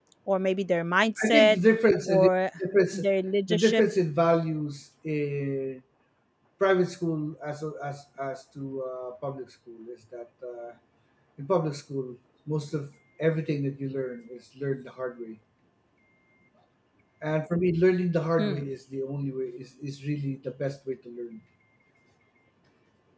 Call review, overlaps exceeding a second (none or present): none